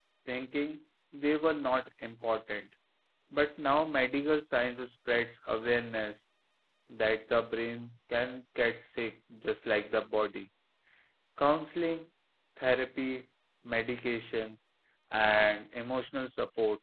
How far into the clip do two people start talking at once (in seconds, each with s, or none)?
none